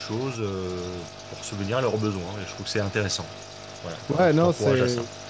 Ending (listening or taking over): taking over